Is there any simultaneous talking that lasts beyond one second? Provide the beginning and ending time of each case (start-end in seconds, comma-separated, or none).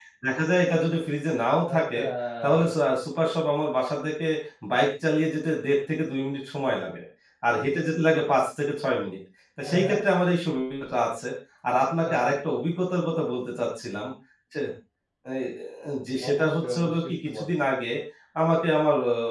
16.3-17.5